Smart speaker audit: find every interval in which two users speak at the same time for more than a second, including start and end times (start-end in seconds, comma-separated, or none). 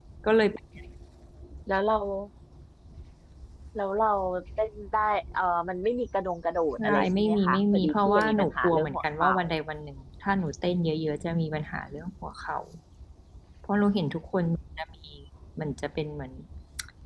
6.8-9.4